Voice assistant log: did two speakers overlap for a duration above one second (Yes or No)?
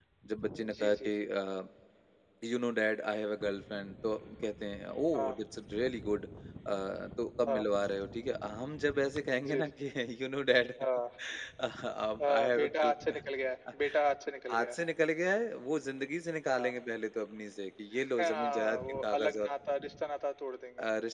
Yes